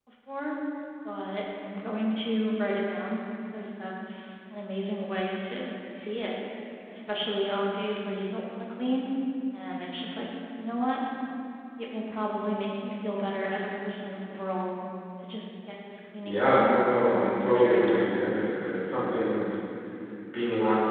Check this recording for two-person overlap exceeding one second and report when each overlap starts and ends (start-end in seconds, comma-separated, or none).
16.2-18.2